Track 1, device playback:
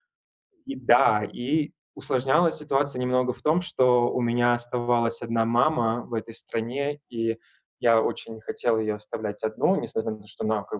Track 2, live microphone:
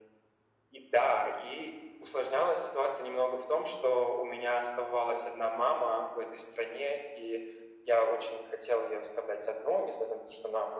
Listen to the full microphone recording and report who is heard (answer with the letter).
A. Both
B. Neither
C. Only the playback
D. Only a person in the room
C